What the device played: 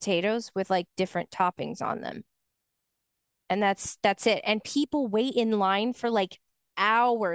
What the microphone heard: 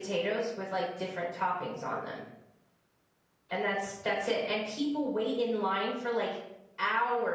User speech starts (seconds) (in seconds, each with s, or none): none